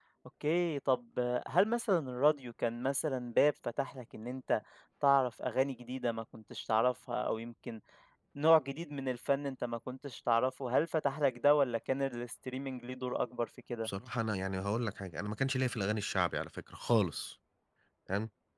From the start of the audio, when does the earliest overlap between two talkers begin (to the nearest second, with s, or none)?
none